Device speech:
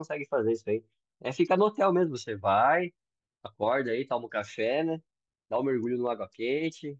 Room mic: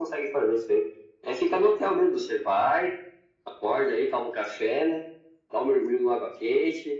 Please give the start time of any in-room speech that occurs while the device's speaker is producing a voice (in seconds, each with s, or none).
none